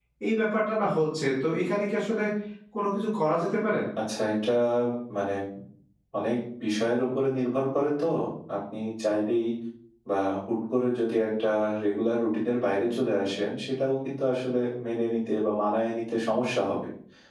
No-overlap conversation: Yes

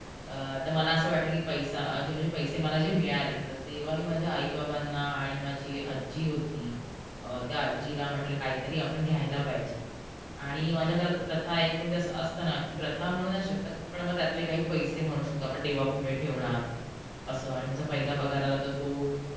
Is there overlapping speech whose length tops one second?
No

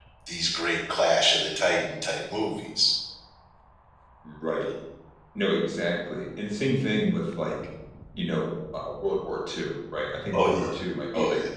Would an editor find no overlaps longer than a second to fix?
Yes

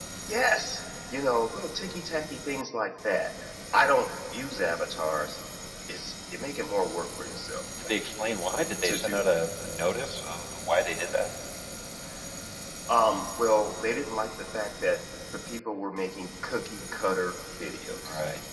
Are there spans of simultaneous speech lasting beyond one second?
No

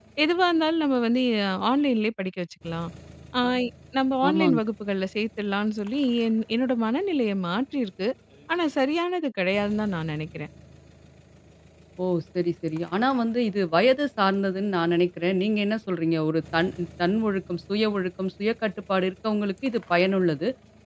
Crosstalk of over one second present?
No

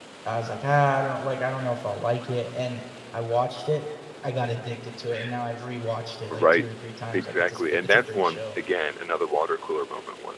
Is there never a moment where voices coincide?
No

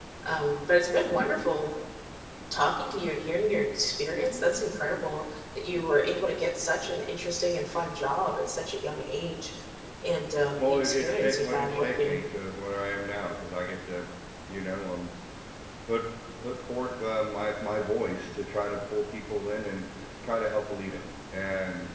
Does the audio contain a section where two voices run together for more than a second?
Yes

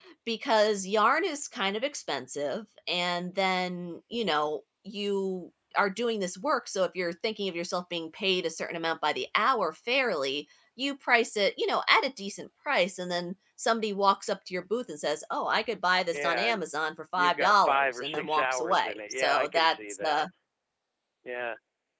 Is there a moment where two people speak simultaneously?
Yes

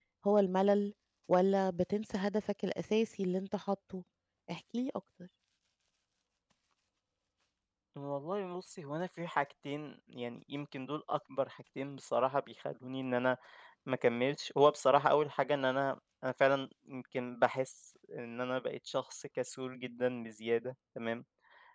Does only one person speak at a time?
Yes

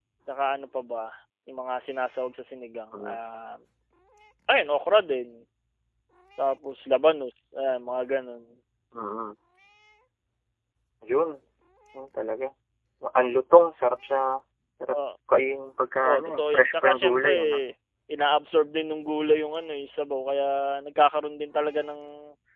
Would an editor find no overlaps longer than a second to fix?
No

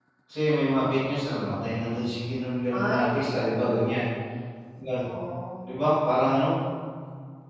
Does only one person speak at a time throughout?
No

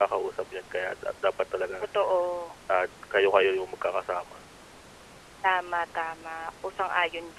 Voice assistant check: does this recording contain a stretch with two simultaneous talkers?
No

